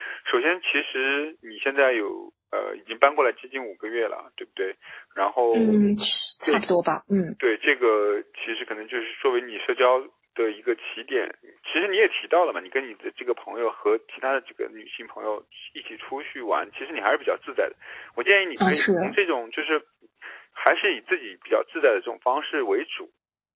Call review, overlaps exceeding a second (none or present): none